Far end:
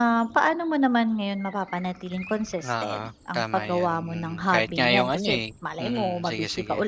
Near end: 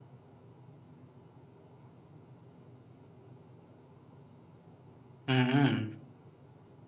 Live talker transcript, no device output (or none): Mm,